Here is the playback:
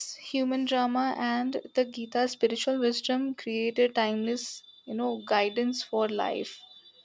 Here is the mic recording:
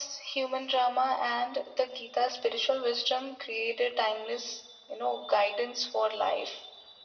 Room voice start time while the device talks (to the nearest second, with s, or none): none